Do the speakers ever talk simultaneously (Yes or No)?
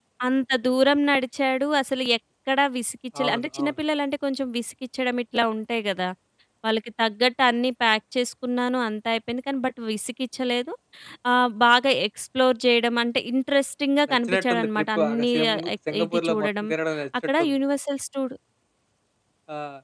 Yes